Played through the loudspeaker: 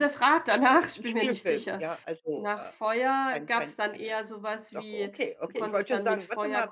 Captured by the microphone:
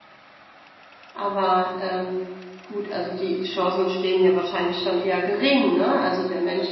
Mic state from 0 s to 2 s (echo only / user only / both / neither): user only